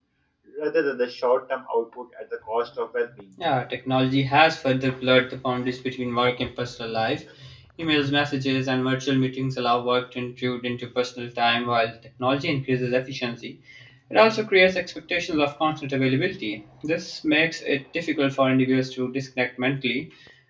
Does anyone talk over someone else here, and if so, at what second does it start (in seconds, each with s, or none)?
none